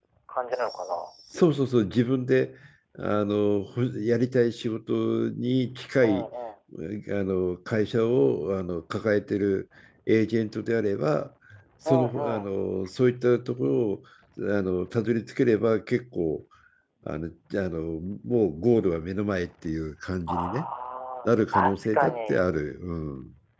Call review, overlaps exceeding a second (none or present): present